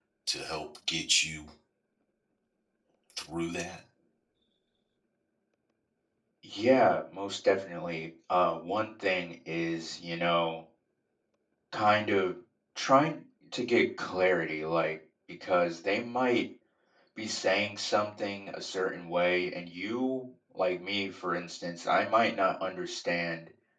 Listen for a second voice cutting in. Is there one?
No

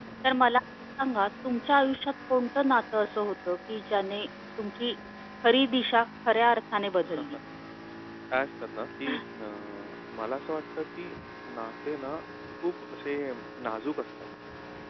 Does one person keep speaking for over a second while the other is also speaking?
No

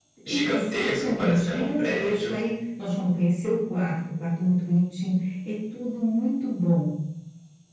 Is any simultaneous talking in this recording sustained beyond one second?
Yes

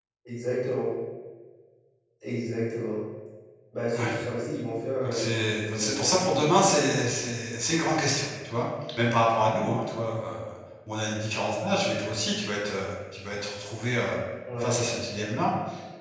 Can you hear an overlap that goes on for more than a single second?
Yes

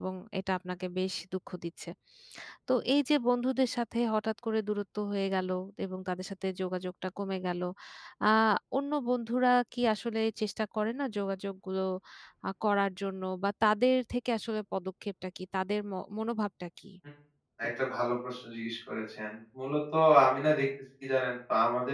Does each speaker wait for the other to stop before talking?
Yes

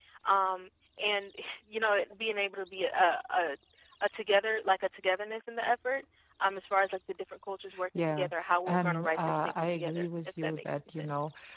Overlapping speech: Yes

